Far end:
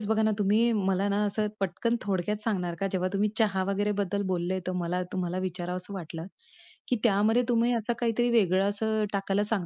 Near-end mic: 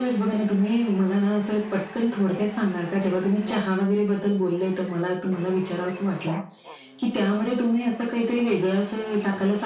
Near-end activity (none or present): none